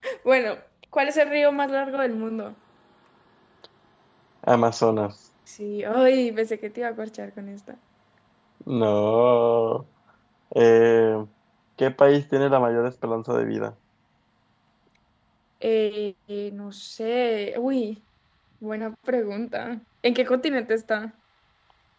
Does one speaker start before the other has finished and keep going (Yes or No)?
No